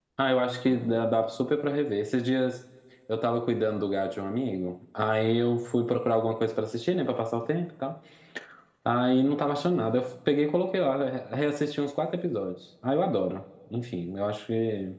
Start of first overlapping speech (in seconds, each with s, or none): none